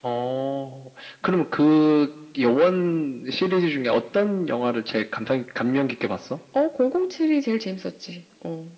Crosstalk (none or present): none